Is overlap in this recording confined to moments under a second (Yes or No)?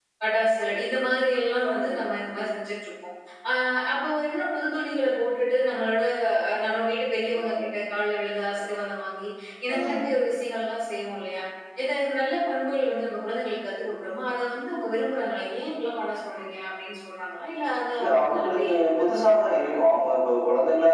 No